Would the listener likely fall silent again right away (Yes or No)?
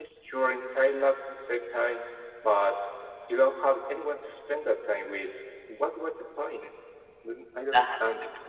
No